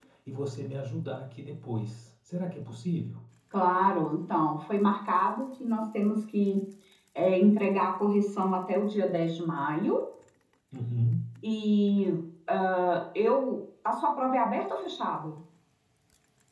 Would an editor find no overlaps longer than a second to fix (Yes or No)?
Yes